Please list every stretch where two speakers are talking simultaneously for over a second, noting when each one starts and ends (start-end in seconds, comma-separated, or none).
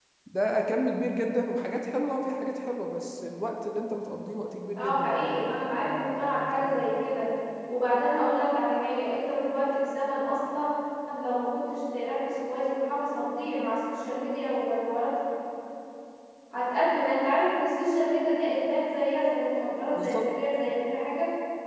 4.8-6.8